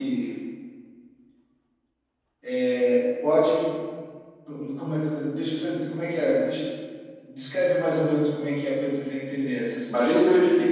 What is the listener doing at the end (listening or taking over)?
taking over